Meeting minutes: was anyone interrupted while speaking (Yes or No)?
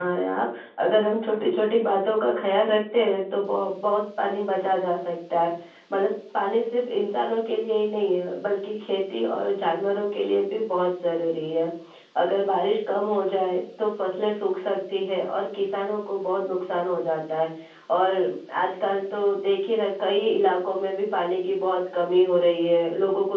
No